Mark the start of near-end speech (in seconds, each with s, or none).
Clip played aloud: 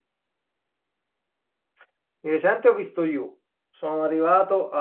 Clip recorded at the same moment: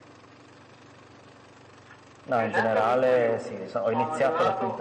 2.2 s